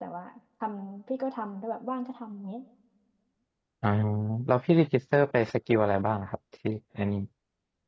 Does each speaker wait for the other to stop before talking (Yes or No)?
Yes